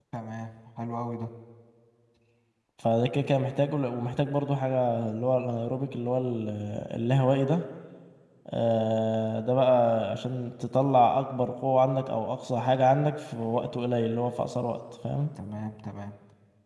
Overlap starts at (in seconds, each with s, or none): none